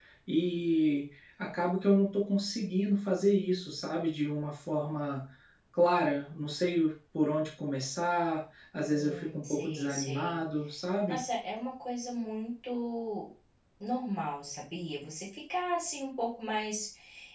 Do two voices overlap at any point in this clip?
Yes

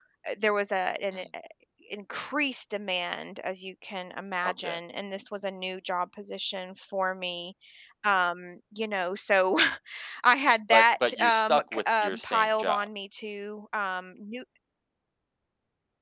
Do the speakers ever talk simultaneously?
Yes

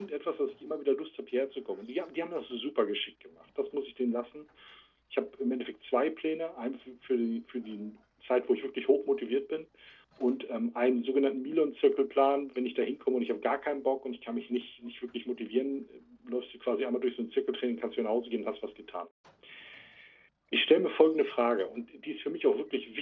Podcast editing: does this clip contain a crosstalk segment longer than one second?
No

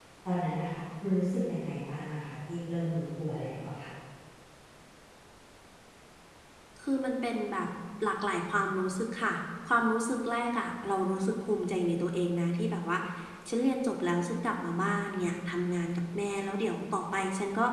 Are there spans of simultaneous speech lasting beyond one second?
No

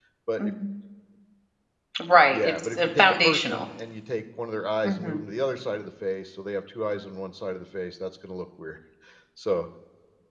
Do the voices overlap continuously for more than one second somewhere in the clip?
Yes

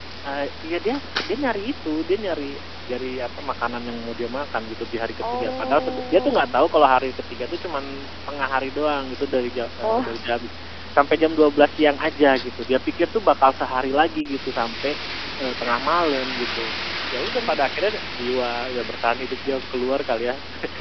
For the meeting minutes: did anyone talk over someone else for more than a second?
Yes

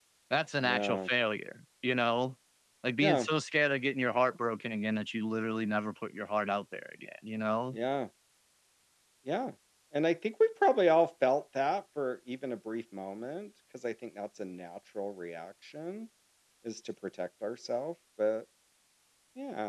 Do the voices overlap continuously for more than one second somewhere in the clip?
No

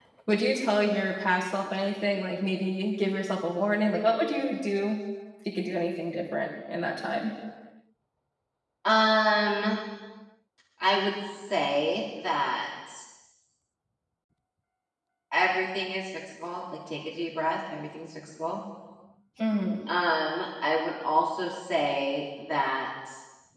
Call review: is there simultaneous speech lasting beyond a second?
No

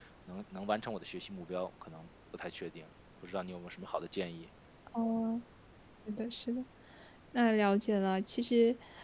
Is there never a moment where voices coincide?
Yes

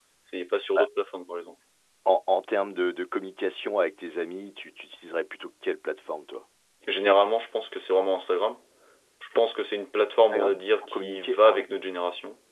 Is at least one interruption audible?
Yes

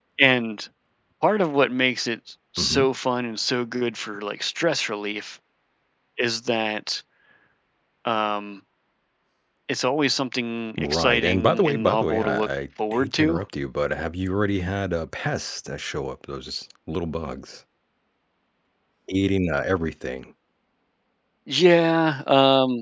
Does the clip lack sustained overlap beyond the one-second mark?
No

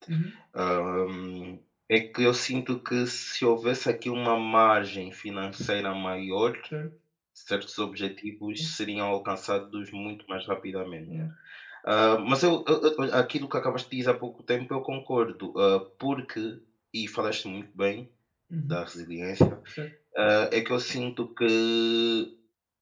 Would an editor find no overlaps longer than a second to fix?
Yes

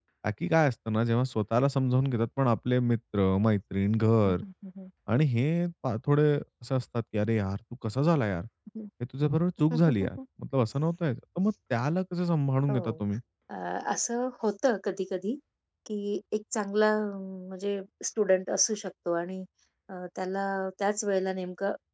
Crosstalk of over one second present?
No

